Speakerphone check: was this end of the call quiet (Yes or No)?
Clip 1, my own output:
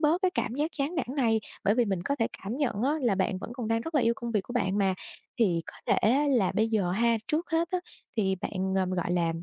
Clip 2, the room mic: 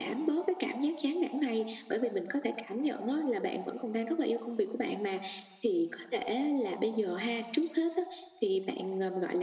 Yes